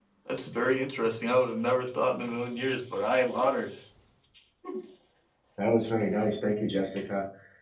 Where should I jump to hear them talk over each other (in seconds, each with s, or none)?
none